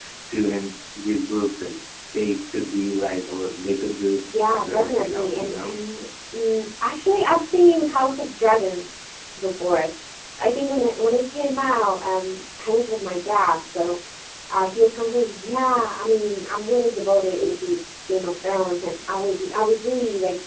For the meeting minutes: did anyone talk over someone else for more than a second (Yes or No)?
Yes